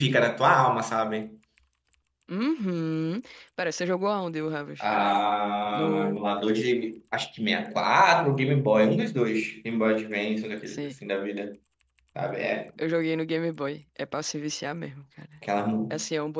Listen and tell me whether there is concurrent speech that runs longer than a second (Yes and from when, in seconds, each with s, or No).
No